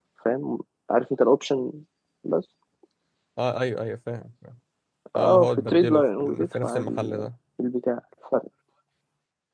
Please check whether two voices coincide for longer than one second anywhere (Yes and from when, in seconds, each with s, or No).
Yes, from 5.2 s